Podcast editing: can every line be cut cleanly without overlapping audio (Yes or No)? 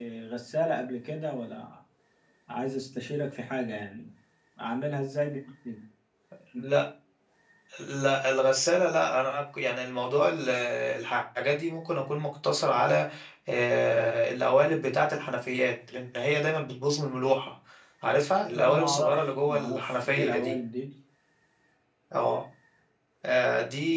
No